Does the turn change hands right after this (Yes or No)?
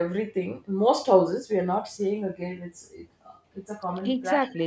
Yes